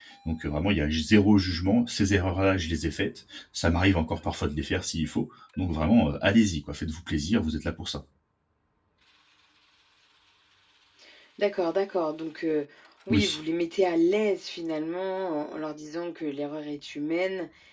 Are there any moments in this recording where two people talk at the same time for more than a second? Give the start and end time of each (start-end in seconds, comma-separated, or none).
none